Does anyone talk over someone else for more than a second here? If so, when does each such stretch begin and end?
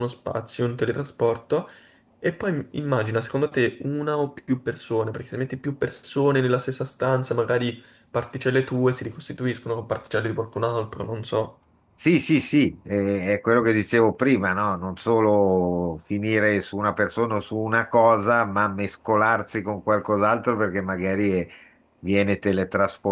none

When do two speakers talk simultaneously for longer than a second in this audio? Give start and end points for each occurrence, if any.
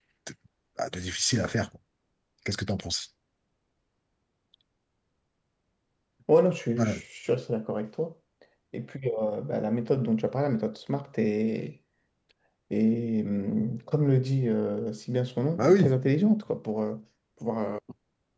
none

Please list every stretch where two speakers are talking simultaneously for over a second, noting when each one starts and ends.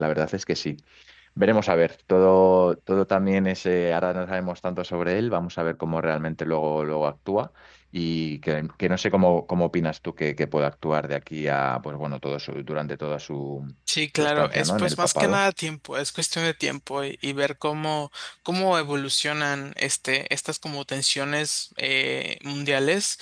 14.2-15.4

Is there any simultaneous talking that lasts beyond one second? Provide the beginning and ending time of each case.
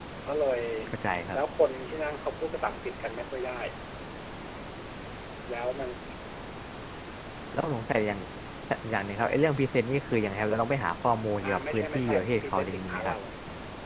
11.4-13.1

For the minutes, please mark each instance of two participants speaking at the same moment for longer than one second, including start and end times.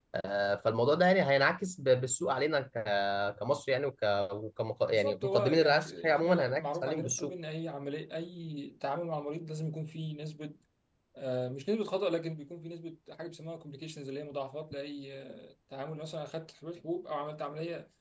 4.9-7.3

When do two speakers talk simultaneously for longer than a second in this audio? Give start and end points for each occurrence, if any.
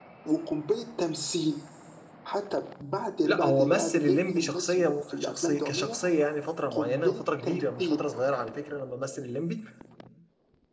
3.2-6.0, 6.7-8.0

